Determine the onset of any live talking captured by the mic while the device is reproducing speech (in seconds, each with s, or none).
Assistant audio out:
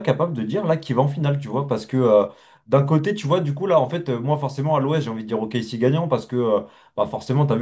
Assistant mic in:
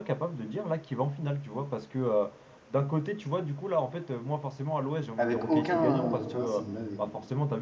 5.2 s